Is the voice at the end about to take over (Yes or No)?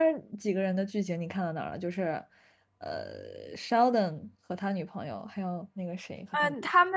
Yes